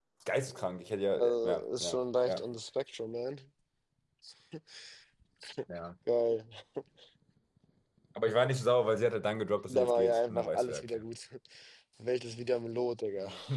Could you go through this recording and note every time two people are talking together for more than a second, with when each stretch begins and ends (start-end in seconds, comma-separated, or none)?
1.2-2.5, 9.7-11.0